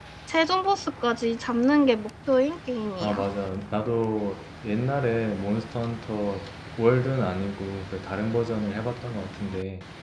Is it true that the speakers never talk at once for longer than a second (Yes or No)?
Yes